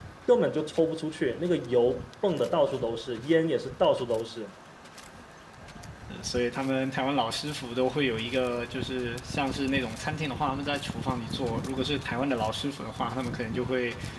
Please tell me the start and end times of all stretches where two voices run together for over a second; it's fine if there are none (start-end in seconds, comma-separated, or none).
none